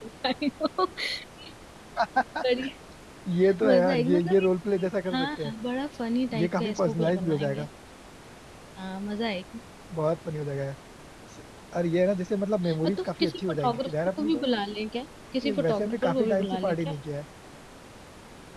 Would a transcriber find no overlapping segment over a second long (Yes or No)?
No